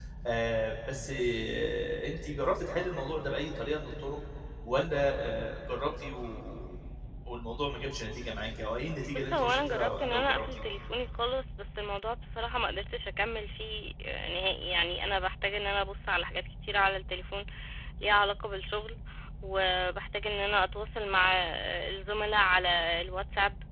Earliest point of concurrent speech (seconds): 9.2 s

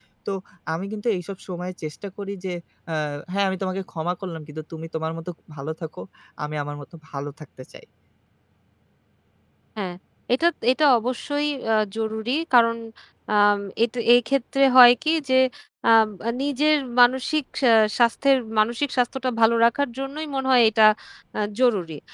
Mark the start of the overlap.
none

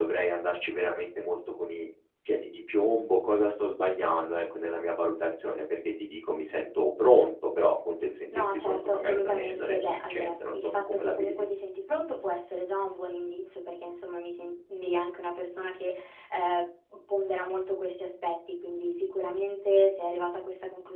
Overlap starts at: 8.3 s

